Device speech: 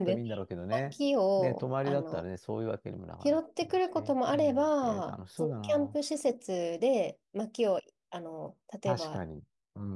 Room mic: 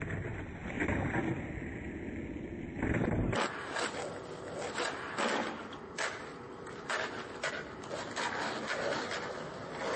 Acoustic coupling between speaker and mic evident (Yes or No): No